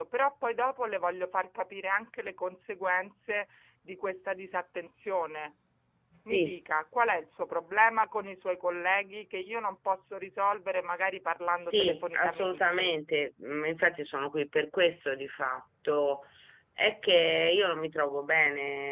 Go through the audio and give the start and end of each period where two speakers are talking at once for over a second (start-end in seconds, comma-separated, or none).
11.6-12.9